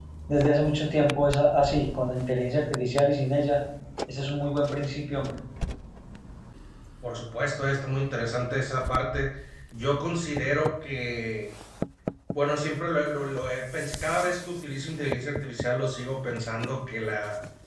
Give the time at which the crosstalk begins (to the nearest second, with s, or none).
none